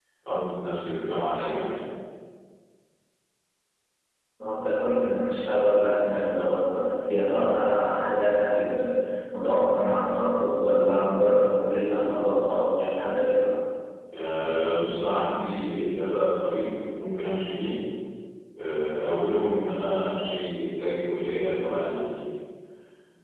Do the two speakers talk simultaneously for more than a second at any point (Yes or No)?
No